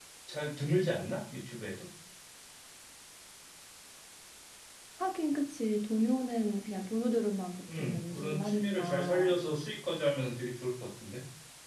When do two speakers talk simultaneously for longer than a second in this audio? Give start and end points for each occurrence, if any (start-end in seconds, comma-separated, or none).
7.8-9.3